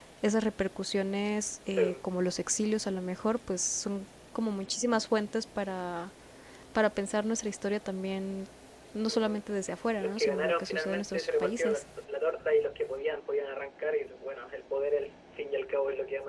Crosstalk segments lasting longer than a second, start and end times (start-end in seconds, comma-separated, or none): 10.0-11.8